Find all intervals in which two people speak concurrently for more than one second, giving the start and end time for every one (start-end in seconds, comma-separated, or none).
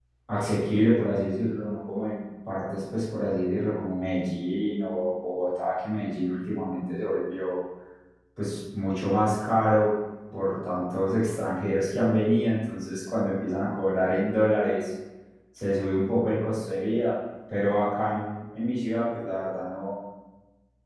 none